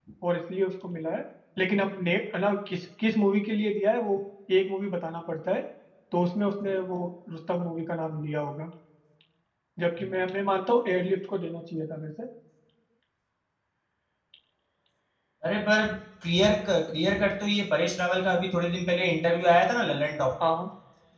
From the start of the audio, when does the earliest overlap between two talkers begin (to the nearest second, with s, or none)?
none